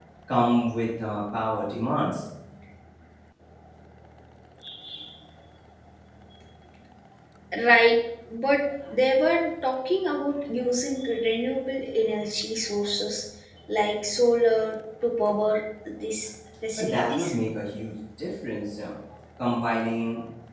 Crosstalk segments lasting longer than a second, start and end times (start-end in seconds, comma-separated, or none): none